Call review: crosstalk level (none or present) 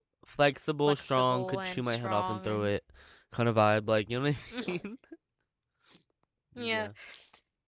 present